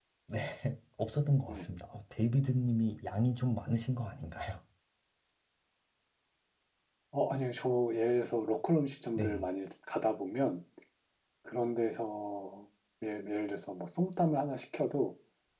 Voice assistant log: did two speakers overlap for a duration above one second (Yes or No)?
No